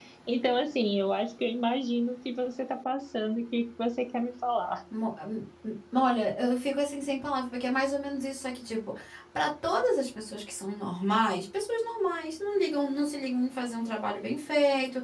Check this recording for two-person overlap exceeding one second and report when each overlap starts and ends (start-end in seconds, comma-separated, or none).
none